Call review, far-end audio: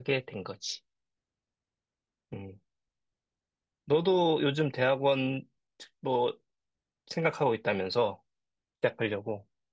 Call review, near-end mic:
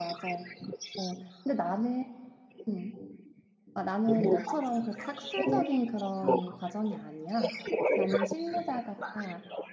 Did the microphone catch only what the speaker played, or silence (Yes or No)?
No